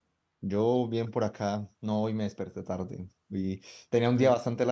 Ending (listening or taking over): listening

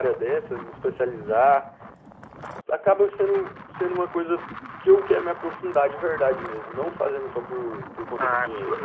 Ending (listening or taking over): taking over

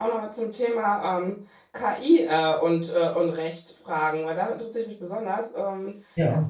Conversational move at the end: listening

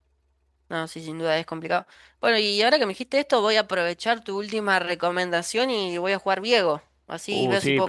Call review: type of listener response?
taking over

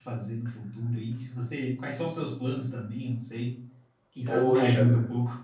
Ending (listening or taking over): taking over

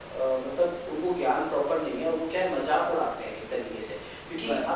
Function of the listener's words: listening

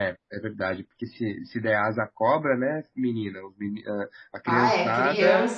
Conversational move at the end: taking over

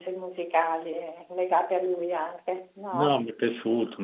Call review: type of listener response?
taking over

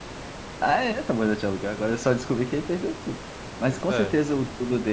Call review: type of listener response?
listening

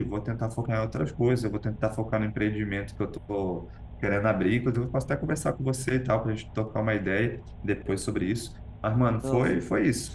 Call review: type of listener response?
listening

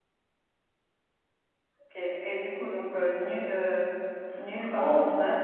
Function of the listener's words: taking over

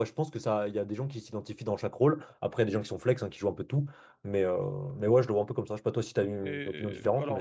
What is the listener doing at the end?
taking over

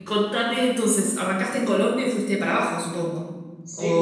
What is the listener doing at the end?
taking over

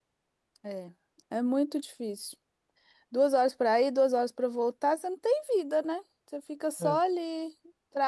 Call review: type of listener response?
listening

